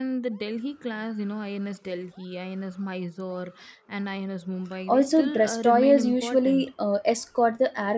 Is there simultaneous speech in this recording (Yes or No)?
Yes